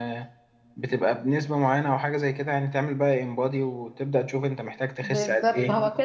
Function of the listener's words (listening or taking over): taking over